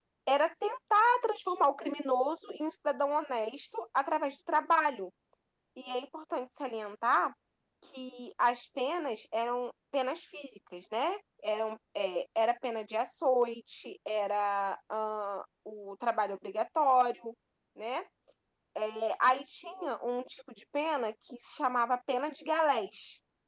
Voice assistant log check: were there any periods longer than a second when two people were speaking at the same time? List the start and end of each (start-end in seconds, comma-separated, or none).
none